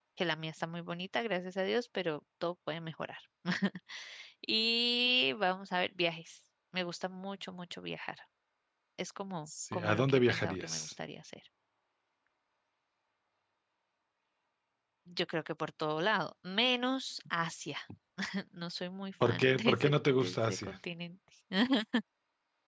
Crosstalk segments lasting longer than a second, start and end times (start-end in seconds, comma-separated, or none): 9.7-10.9, 19.2-20.8